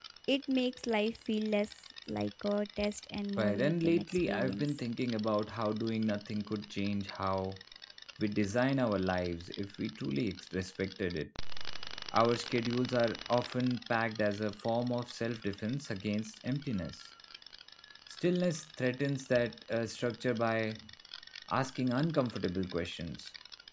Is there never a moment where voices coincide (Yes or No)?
No